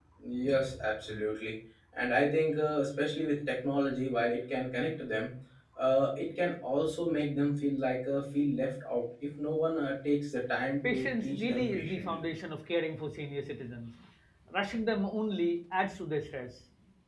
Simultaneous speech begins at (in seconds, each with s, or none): 10.8 s